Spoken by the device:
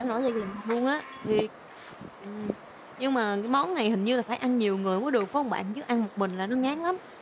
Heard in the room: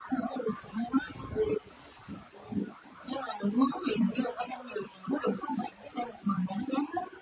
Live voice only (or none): none